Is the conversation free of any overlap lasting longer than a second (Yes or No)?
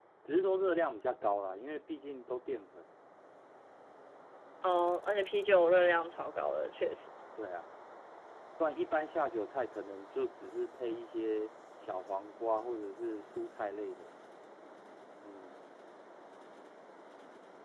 Yes